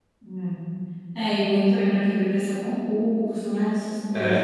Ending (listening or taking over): taking over